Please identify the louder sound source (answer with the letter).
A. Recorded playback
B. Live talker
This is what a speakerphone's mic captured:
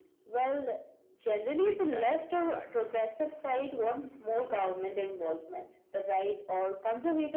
A